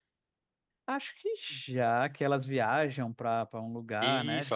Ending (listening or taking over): taking over